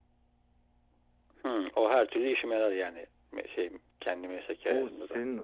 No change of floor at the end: No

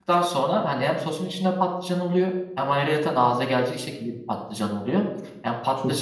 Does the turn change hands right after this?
No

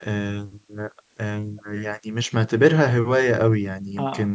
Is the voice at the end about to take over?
No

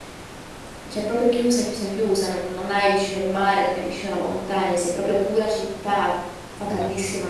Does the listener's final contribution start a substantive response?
No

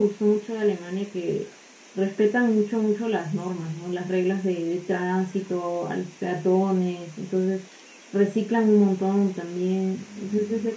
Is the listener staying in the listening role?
Yes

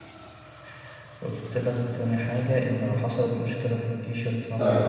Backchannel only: No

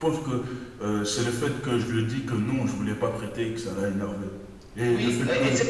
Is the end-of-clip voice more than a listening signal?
Yes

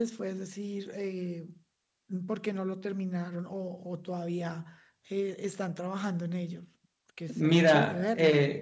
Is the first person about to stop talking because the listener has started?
Yes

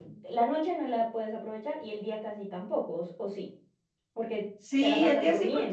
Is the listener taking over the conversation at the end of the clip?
Yes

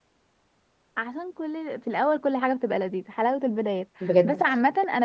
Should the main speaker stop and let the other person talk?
No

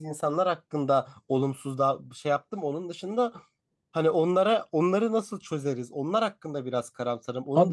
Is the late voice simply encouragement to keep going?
Yes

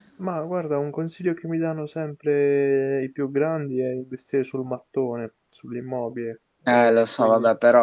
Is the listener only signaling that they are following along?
No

